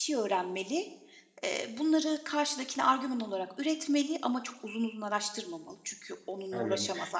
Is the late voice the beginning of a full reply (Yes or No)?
Yes